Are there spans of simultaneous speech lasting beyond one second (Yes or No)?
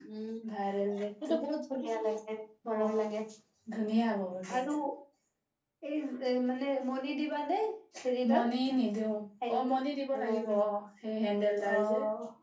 No